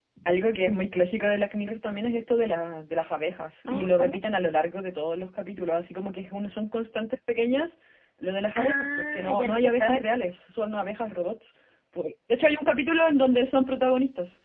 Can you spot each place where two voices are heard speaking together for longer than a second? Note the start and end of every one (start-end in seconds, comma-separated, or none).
8.6-10.1